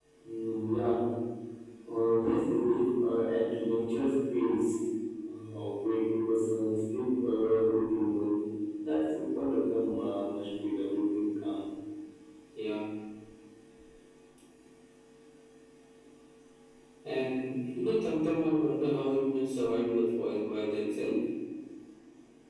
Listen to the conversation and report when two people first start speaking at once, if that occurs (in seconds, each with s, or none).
none